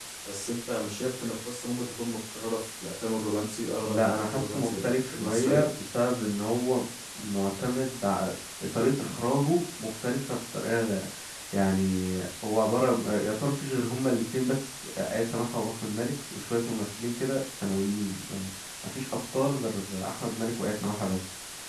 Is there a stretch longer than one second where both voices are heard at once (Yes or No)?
Yes